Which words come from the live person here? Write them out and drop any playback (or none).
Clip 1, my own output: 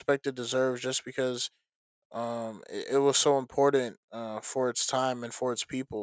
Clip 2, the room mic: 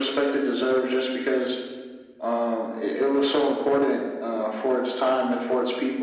none